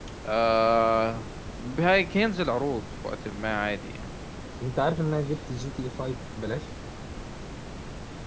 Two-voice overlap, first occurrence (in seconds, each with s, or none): none